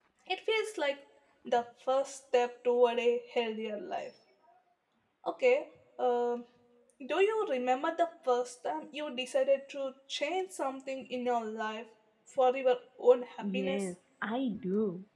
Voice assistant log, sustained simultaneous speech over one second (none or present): none